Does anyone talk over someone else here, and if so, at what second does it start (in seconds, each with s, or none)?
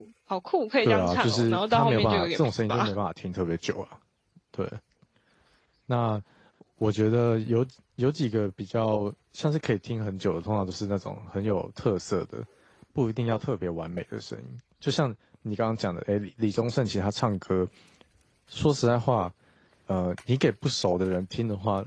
0.8 s